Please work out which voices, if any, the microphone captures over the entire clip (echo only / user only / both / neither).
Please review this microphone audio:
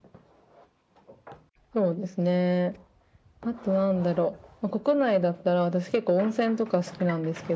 echo only